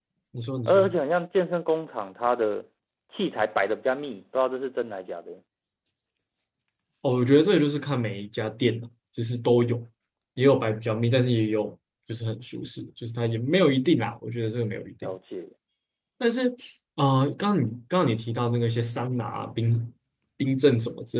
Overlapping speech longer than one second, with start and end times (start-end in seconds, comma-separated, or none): none